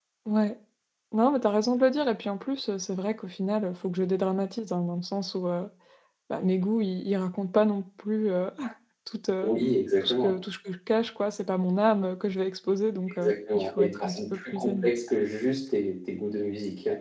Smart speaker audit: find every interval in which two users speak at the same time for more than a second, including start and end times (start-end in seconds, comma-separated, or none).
13.2-14.9